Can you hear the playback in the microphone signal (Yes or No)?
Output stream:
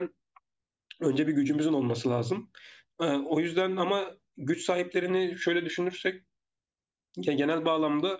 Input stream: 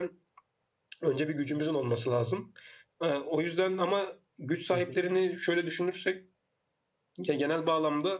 Yes